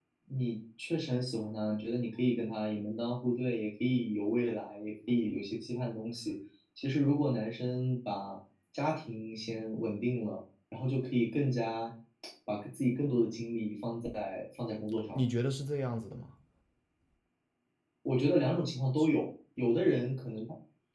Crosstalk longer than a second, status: none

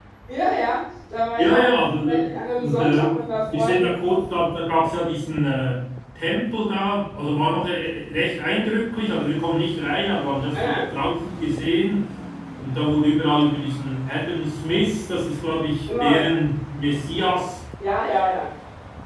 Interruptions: present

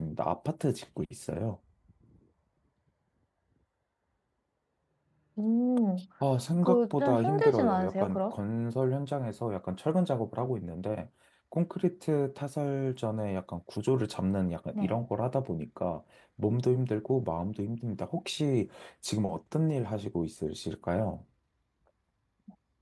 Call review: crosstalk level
present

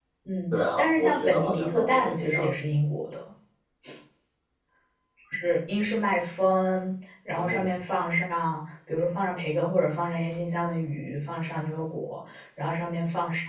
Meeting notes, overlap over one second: present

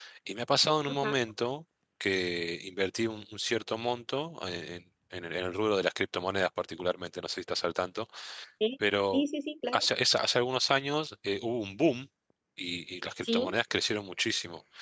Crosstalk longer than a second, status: none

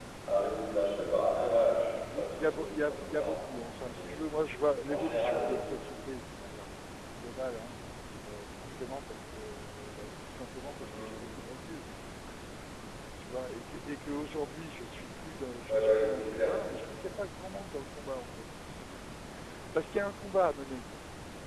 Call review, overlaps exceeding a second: present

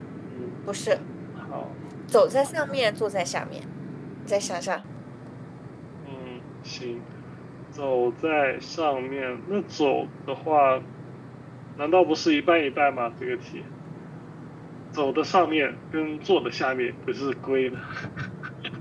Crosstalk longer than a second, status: none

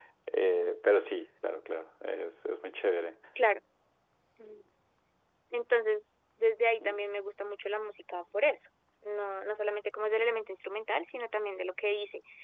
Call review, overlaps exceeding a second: none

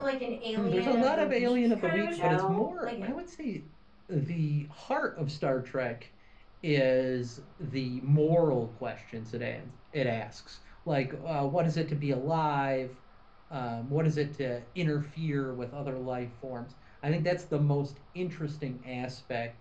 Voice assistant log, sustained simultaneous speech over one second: present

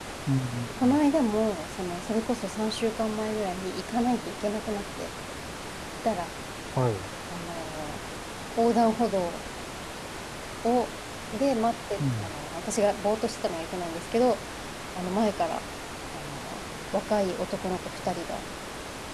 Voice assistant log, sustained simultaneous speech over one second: none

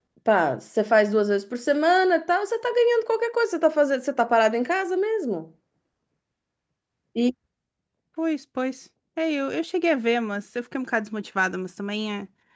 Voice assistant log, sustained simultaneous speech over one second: none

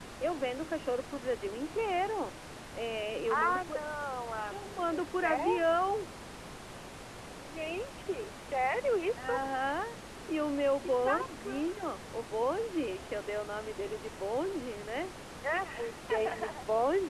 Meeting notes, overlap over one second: present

